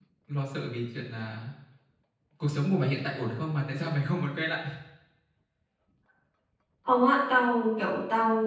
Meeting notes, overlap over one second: none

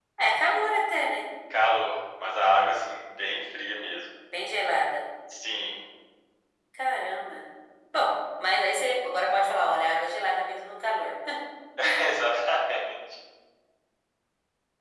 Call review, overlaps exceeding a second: none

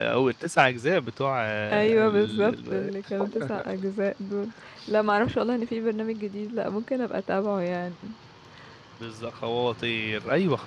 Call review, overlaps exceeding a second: present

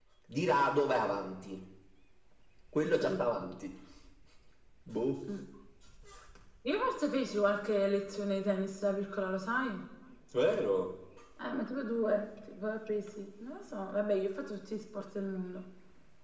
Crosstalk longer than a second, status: none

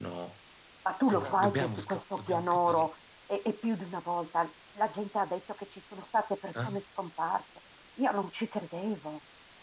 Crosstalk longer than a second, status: present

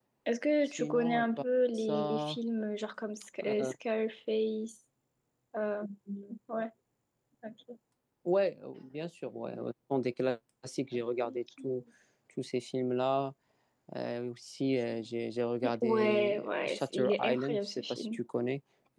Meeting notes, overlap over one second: present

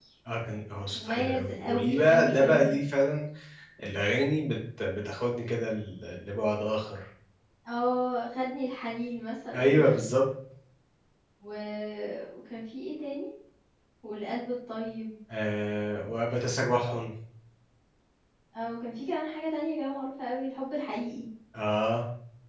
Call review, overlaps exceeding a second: present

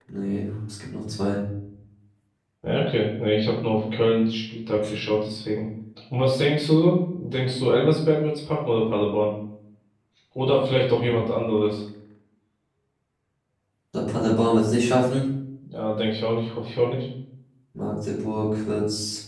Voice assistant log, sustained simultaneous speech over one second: none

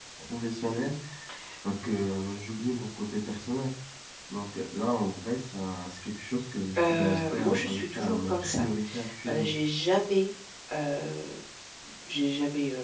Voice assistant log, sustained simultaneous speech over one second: present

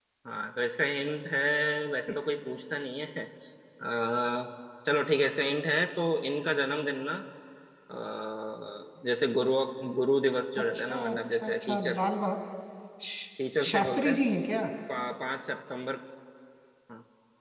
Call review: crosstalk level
present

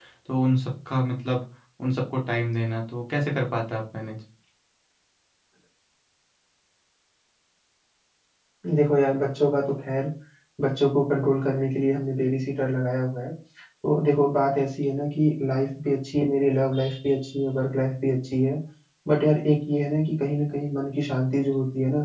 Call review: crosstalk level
none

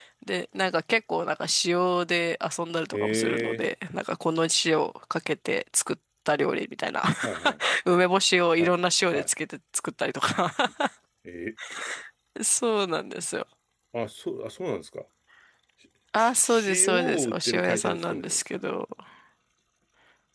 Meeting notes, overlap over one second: present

